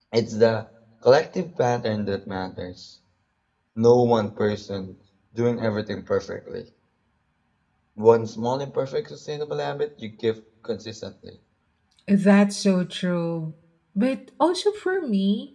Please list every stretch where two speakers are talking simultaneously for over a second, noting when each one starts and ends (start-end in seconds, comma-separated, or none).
none